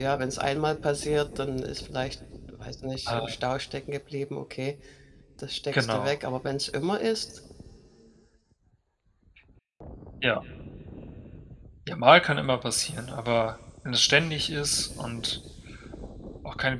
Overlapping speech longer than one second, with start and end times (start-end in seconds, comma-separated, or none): none